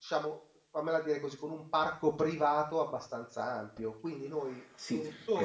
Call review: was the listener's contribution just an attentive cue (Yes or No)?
No